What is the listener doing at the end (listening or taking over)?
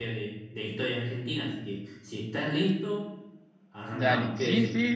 taking over